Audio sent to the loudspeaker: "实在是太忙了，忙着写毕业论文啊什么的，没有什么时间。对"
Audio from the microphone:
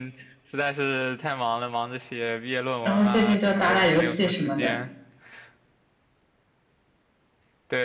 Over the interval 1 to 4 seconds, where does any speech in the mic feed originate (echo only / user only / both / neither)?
both